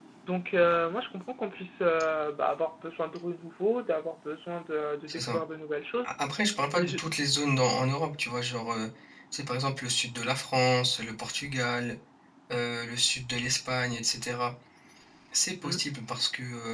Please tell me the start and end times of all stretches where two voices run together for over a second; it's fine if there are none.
none

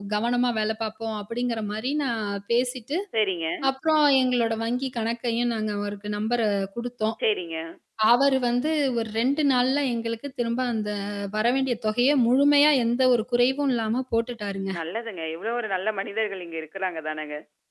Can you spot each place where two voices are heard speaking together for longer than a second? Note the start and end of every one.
none

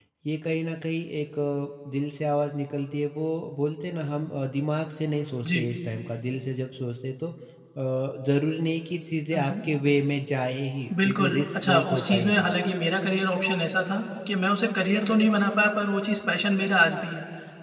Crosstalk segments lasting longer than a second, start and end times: 11.1-12.5

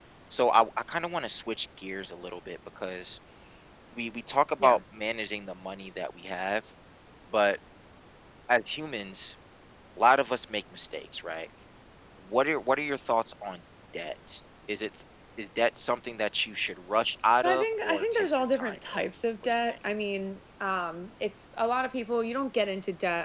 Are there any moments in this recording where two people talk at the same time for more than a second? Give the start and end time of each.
17.4-19.0

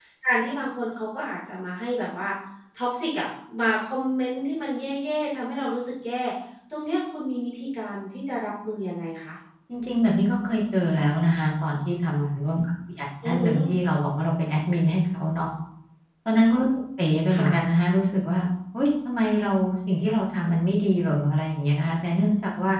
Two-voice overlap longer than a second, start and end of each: none

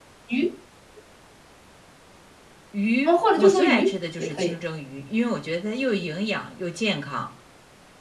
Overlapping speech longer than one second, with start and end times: 3.0-4.5

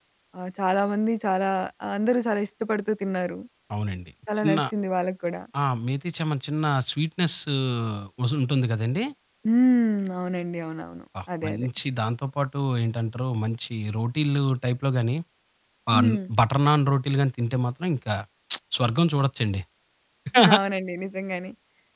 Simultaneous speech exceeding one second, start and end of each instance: none

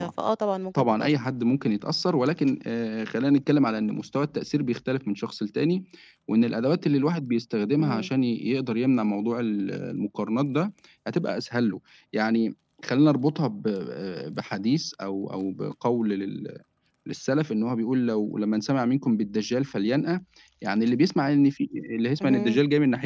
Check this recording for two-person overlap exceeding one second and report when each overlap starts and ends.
none

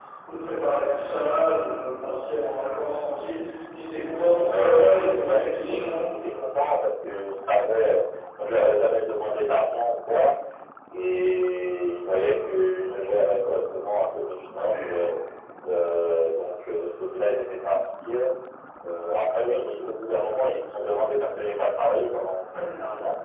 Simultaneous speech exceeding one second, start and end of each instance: 4.5-6.0

